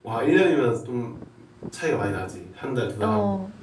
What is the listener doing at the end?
taking over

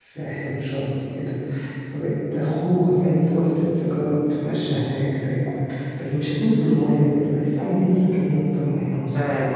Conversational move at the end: taking over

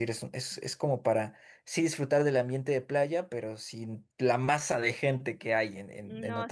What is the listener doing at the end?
taking over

